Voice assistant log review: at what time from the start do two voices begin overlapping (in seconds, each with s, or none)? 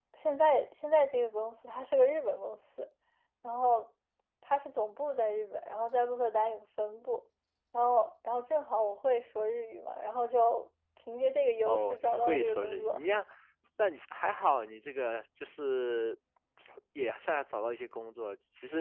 11.7 s